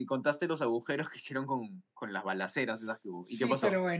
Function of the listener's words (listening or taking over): taking over